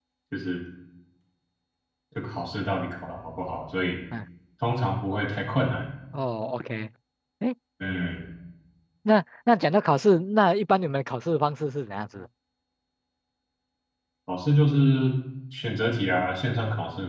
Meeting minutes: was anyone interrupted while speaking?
No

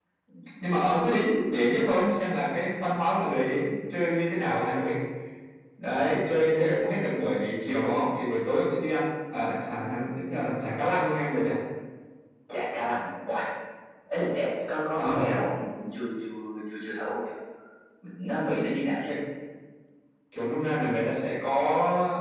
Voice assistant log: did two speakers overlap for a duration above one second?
No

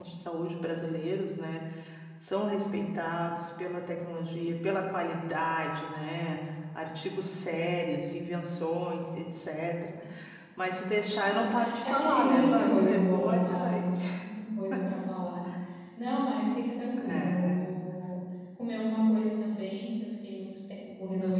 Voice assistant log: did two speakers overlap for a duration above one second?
Yes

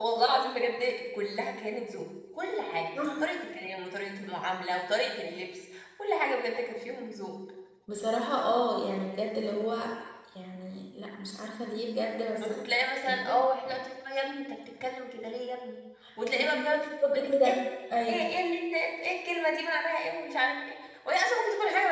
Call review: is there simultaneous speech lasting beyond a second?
Yes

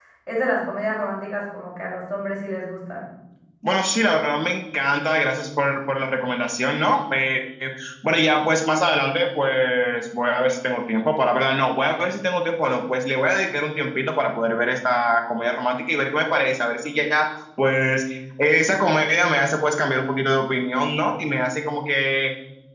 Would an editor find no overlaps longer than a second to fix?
Yes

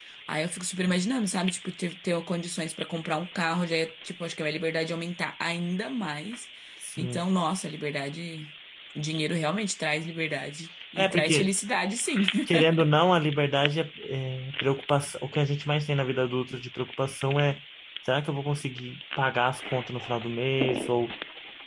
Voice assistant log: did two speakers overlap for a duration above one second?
No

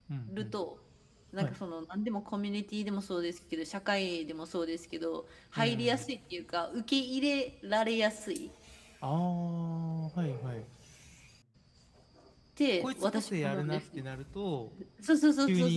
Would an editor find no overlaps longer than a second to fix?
No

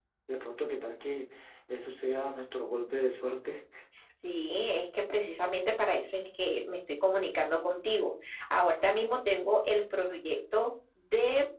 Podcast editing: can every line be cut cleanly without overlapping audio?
Yes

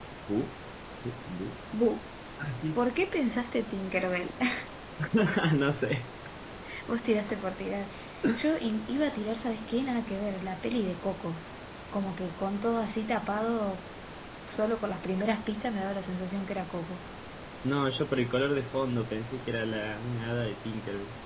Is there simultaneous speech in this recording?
No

